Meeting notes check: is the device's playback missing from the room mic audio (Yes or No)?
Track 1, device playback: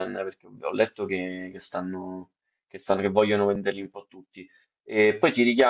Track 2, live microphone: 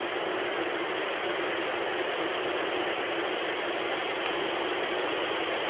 Yes